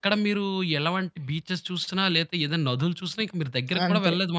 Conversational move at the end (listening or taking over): taking over